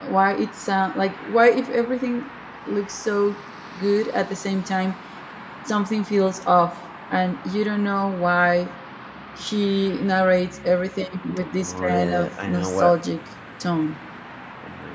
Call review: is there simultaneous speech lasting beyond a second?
Yes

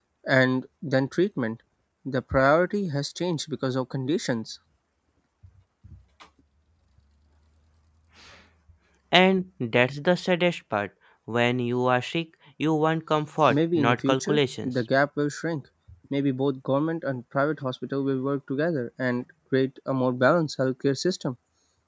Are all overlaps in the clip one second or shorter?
No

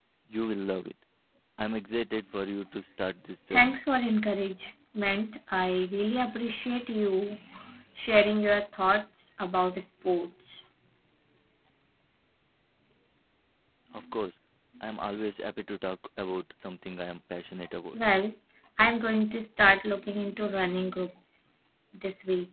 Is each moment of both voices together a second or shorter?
Yes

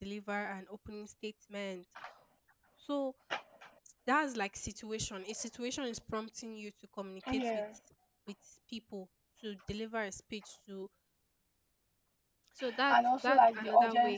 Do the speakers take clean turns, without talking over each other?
No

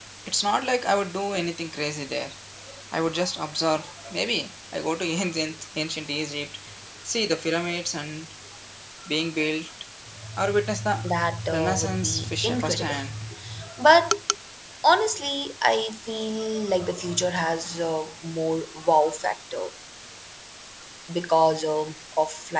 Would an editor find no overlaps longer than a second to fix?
No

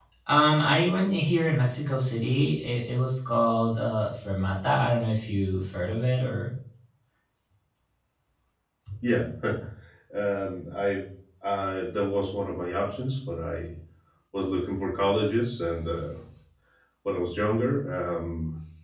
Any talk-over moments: No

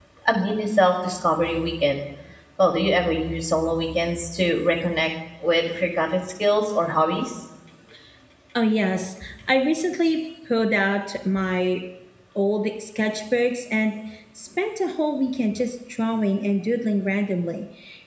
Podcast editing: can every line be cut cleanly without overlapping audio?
Yes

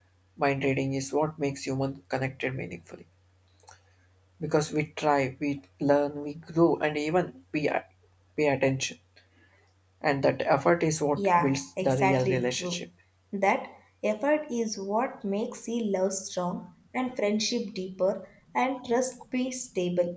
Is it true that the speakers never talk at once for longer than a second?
No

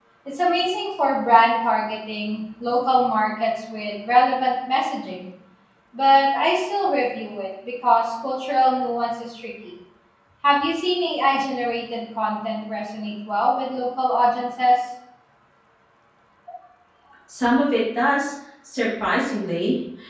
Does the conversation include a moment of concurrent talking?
No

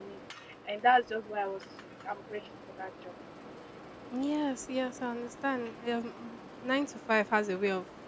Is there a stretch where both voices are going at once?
No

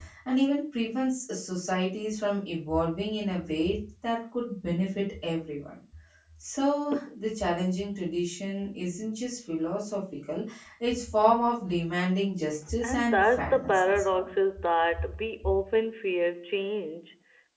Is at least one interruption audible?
Yes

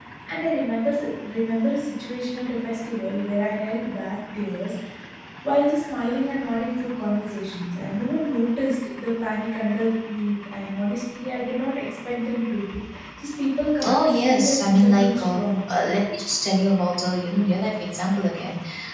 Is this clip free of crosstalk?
No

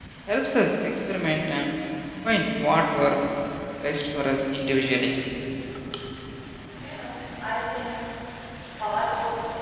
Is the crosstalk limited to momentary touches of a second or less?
Yes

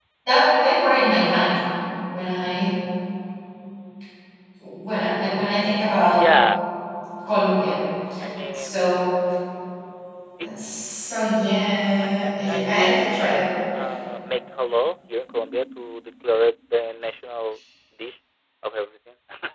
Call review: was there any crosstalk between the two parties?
Yes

